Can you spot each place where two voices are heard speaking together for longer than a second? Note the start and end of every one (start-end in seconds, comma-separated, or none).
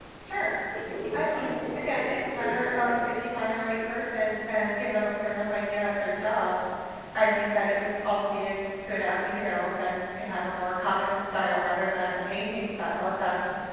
1.1-3.1